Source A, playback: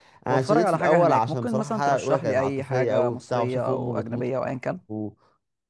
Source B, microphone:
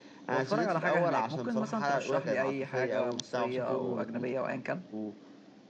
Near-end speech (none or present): present